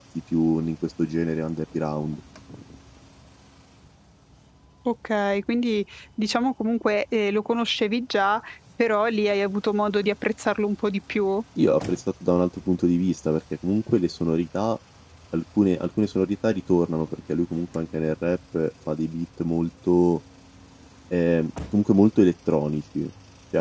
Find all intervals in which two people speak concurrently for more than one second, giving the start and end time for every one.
none

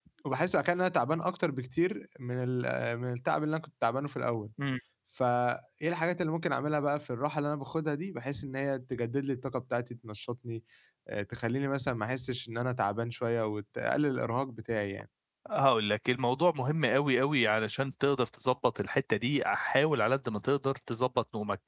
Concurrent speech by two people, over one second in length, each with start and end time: none

